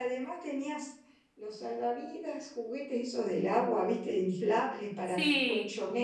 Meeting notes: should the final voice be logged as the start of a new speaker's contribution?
No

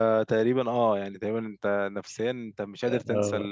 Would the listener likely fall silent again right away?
No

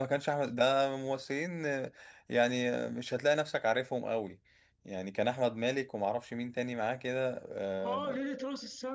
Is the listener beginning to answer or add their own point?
Yes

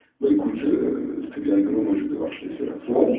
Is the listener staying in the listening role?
No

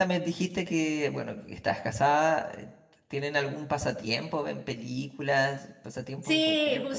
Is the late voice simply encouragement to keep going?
No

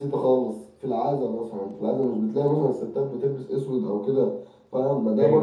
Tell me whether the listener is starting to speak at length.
No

